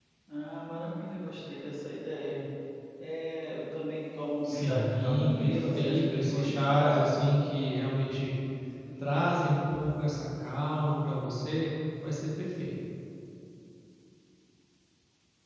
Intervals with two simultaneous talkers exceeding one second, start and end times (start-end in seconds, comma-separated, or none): 4.4-7.1